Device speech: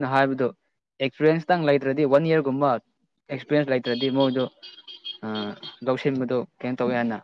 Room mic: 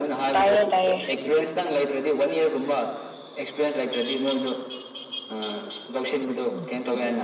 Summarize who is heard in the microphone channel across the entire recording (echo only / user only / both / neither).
both